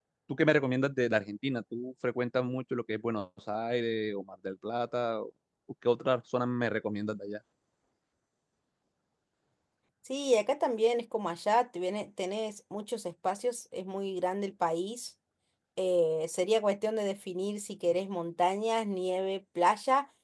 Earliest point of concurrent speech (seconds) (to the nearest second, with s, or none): none